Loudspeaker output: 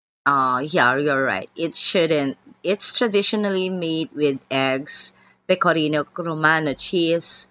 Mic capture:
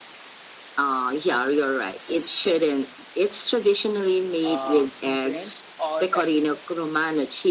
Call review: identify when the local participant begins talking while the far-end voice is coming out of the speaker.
4.4 s

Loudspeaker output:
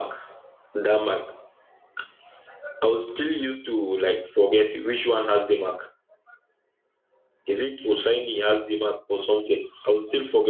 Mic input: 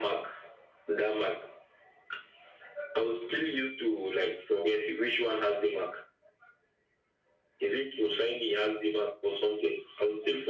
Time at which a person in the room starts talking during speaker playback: none

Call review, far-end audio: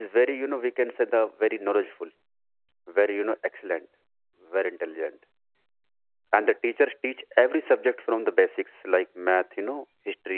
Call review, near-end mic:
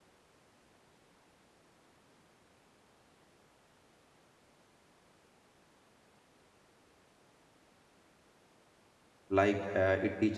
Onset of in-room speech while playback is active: 9.3 s

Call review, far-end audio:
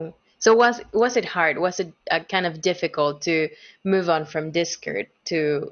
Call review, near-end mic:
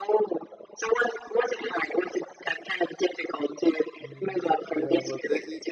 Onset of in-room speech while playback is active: 4.0 s

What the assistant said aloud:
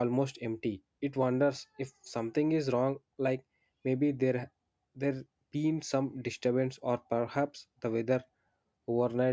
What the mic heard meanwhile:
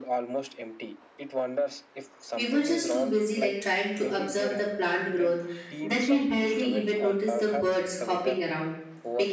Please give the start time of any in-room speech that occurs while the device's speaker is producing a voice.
2.3 s

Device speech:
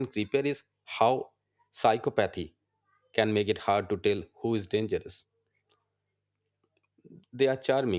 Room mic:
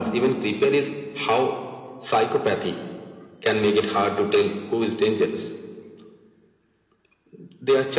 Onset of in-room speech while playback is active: none

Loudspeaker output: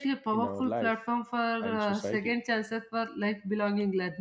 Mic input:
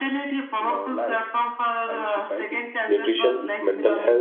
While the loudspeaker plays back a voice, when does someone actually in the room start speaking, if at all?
2.9 s

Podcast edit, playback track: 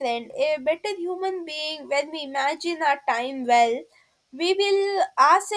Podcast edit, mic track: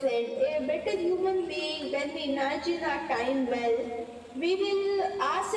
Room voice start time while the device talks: none

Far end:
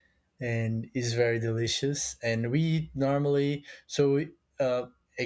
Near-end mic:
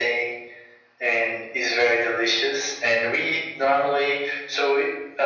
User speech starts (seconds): none

